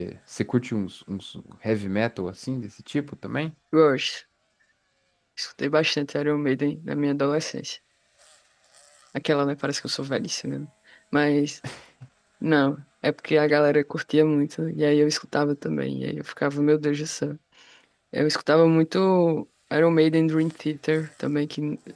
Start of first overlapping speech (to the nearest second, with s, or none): none